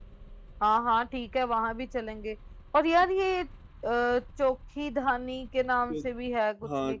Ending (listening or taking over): taking over